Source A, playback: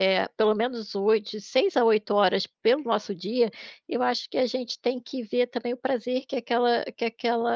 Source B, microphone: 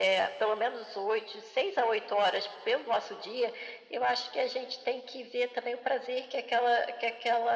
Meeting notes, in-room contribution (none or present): none